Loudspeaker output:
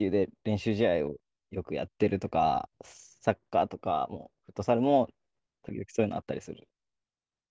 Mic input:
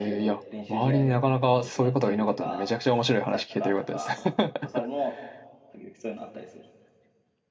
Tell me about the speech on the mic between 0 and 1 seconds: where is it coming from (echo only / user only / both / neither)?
both